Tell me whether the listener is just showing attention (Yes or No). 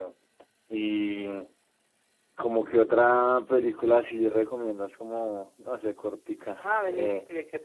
No